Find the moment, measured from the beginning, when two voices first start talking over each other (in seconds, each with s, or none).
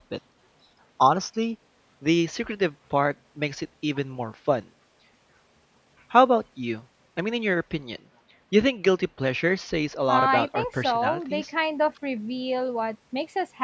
10.1 s